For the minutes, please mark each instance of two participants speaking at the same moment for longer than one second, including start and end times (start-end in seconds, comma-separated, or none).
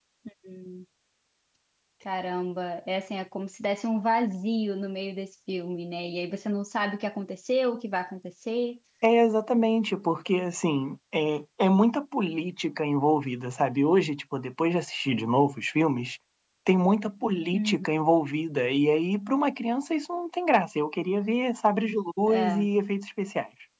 none